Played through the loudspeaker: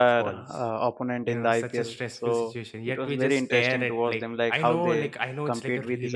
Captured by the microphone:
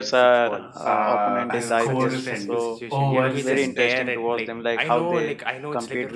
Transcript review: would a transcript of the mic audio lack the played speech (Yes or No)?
No